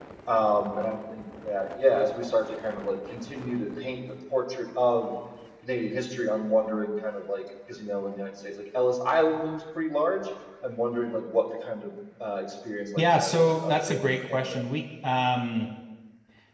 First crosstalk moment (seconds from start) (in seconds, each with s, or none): 13.0 s